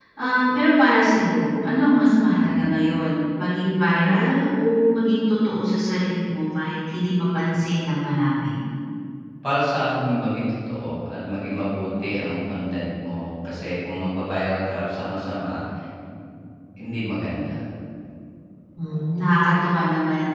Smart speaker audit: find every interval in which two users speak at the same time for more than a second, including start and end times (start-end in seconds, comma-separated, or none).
none